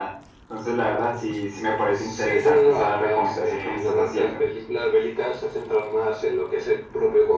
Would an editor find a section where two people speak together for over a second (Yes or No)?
Yes